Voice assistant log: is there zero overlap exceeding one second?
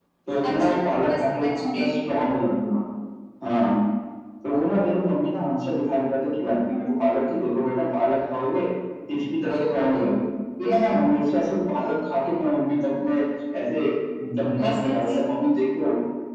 No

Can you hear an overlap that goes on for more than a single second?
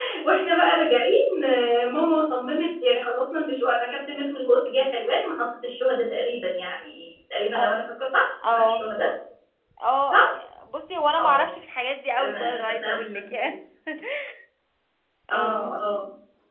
Yes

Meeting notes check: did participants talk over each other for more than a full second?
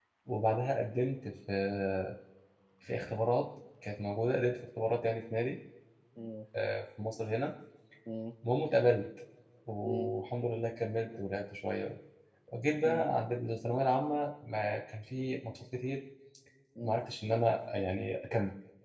No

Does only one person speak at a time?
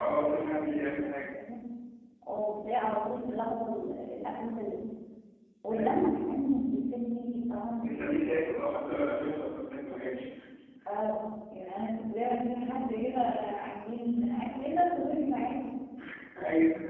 No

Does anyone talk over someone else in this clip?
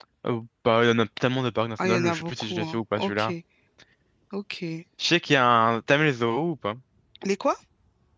Yes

